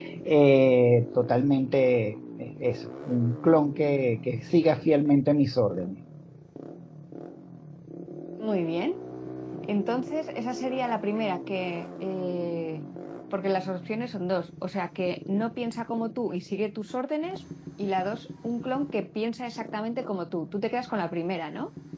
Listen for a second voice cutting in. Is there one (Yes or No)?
No